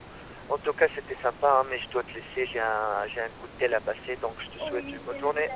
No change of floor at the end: No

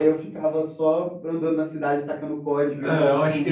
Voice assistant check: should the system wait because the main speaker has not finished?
No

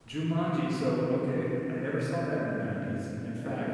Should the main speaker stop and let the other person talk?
No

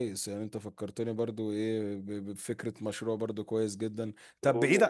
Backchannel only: Yes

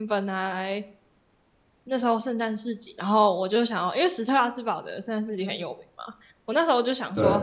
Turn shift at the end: No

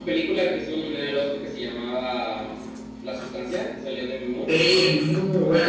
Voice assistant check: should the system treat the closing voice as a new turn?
Yes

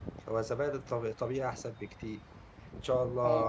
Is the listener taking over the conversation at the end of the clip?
No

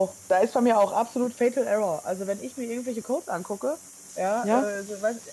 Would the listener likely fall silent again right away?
Yes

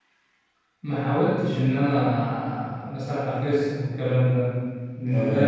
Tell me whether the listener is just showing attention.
Yes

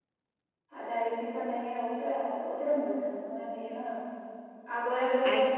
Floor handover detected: No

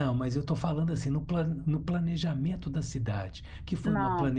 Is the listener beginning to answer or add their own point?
No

